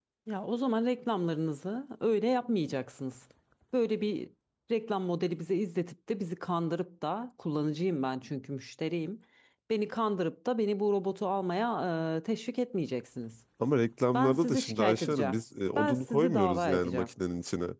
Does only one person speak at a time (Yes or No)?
No